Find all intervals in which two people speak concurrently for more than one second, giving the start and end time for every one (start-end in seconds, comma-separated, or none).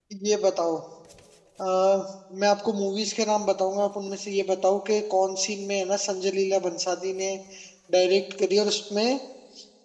none